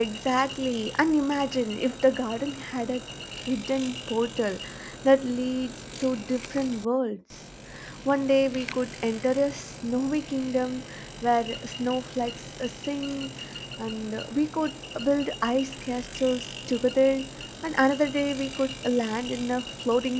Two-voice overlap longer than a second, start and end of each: none

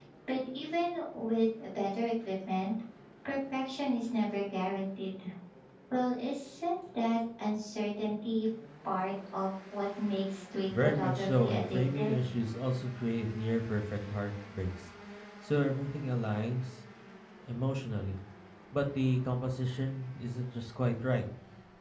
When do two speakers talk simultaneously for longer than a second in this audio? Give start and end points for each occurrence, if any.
10.8-12.1

